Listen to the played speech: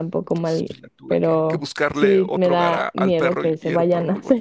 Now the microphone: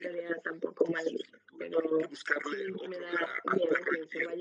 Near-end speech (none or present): none